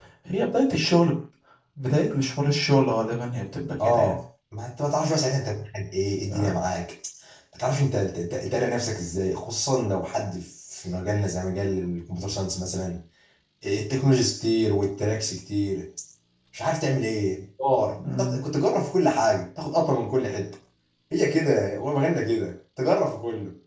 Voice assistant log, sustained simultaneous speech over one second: none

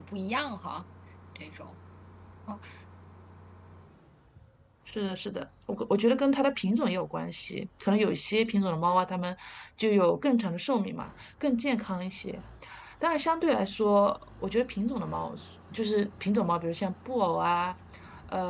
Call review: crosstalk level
none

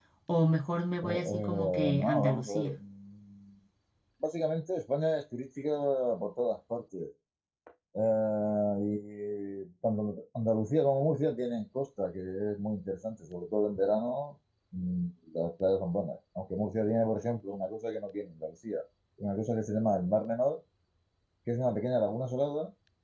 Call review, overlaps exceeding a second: present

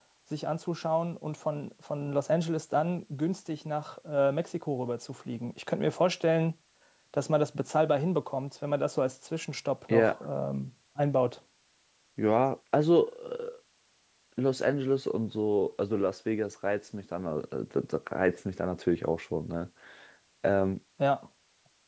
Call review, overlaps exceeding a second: none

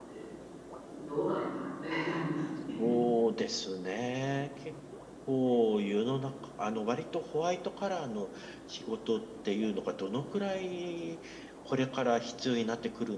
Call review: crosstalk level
none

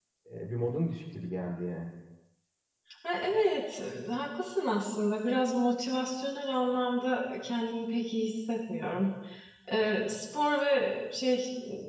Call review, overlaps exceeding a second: none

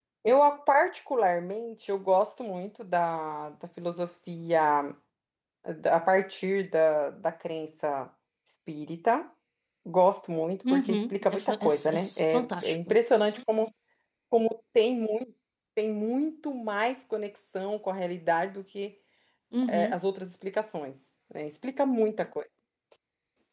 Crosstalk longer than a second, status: present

